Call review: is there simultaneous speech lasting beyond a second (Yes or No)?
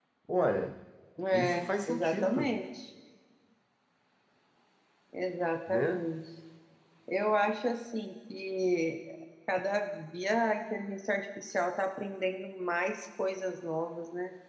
Yes